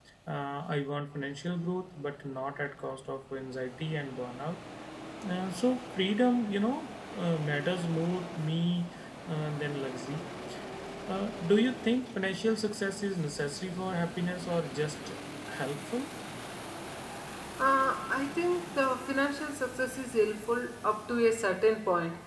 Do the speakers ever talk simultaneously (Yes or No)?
No